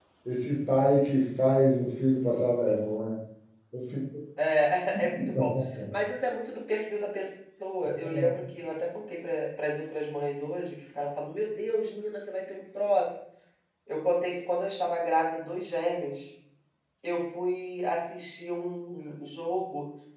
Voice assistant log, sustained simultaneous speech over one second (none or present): none